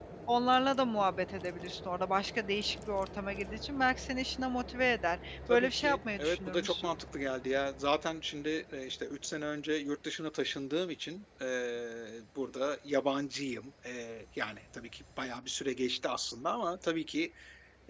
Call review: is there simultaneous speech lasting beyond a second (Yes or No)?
Yes